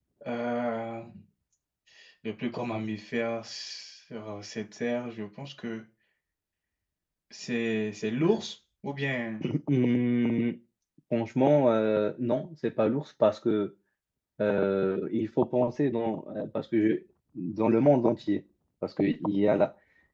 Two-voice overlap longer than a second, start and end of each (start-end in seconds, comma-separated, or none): none